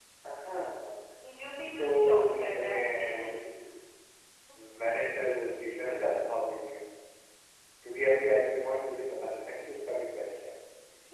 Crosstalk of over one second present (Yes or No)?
Yes